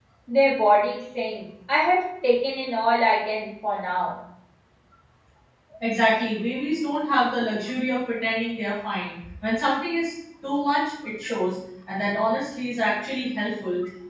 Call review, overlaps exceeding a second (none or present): none